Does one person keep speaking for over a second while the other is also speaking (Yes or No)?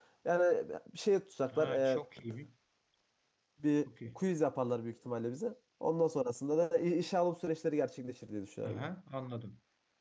No